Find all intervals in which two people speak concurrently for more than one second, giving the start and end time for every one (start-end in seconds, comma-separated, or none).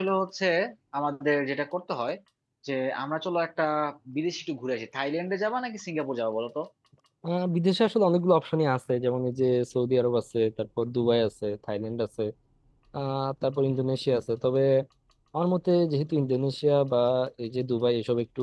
none